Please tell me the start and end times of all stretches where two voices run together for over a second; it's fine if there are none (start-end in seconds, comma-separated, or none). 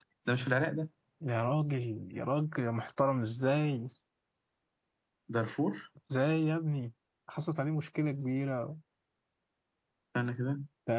none